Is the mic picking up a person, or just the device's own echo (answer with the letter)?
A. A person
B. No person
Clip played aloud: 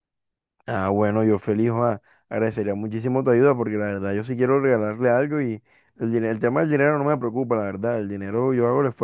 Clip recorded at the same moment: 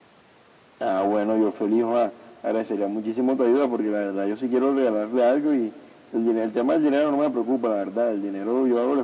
B